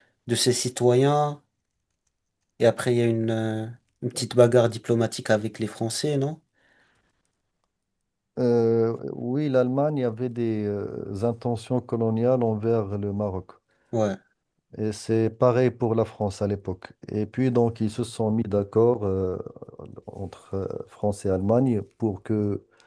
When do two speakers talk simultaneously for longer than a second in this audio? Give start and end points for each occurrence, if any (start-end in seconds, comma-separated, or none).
none